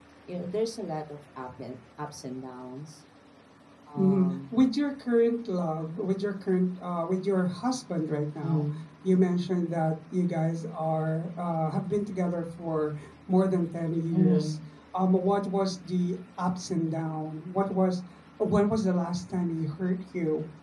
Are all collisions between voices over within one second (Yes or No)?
Yes